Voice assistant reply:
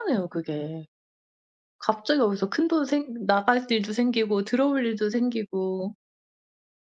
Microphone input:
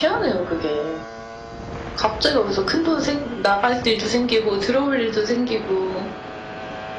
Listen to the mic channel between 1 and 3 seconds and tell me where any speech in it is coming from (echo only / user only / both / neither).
echo only